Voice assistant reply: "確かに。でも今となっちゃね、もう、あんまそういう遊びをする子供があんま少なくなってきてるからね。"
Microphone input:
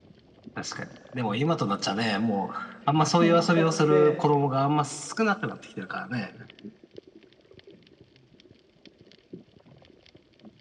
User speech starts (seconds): 3.0 s

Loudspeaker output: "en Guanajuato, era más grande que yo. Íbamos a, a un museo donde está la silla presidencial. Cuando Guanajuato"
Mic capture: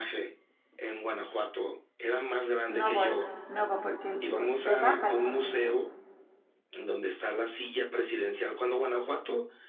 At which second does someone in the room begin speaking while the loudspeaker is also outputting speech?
2.7 s

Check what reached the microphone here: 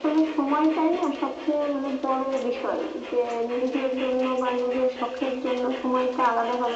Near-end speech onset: none

